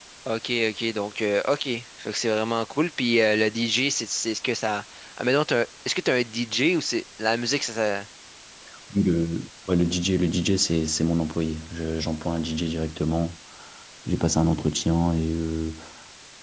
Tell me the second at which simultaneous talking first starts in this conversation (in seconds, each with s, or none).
none